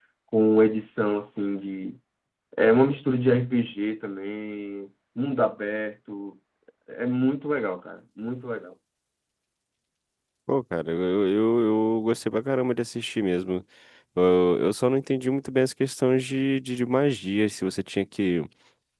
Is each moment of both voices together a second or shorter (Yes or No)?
Yes